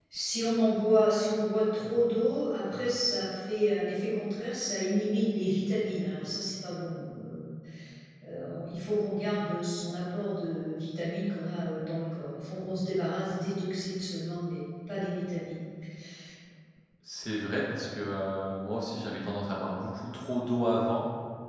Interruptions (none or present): none